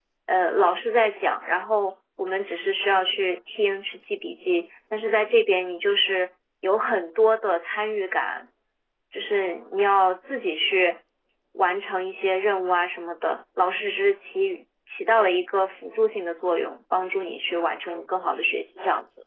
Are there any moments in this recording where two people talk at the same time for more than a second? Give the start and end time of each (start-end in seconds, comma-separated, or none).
none